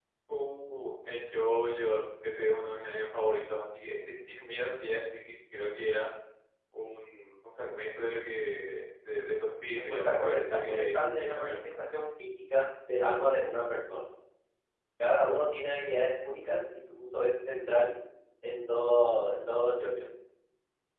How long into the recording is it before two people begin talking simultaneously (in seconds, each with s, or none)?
9.9 s